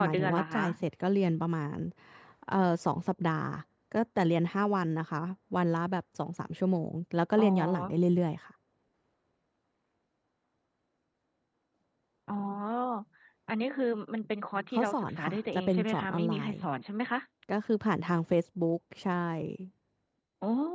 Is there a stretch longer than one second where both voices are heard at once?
Yes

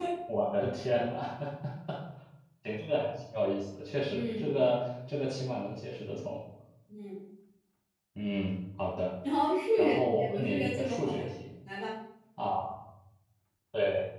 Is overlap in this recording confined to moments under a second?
No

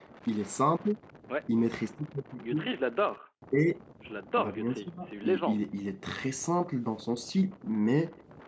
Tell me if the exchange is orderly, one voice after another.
No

